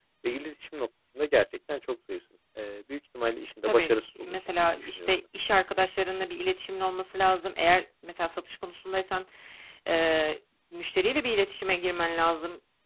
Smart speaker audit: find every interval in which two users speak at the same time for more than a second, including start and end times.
3.7-5.2

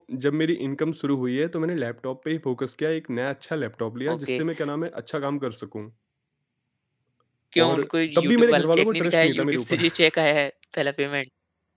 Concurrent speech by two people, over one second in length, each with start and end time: 7.6-9.8

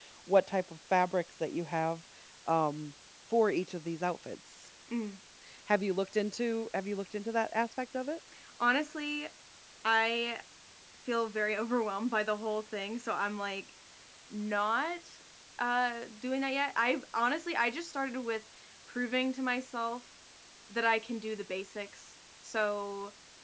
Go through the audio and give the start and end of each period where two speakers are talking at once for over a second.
none

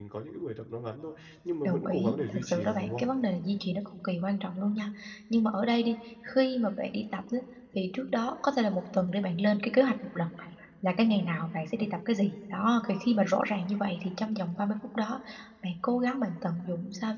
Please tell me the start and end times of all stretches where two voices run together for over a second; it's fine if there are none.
1.6-3.0

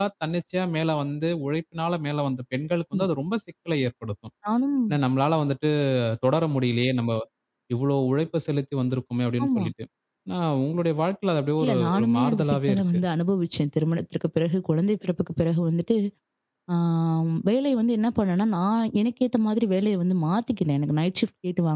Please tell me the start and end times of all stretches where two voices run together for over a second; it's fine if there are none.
11.6-13.0

